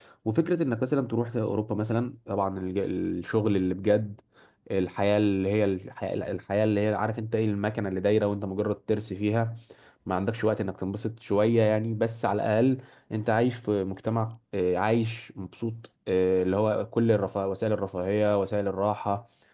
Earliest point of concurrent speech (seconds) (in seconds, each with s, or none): none